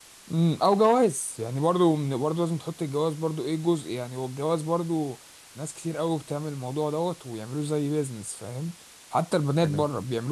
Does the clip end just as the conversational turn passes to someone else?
No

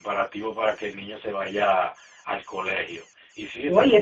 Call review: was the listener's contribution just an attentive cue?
No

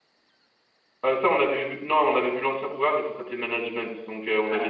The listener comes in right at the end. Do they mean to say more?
No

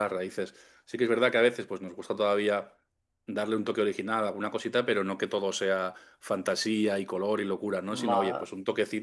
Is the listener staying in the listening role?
Yes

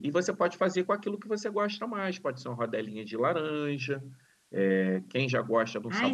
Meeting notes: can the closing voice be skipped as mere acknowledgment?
No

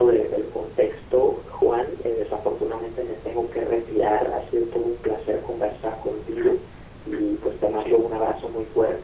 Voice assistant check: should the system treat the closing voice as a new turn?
No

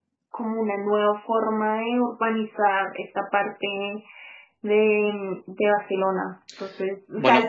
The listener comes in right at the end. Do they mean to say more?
No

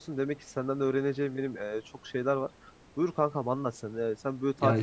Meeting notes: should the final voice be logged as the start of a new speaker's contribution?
No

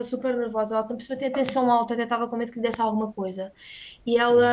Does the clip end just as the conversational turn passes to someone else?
No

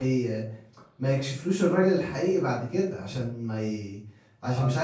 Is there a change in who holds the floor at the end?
No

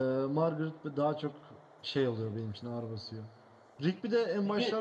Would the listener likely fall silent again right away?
Yes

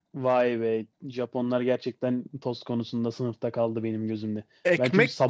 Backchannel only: No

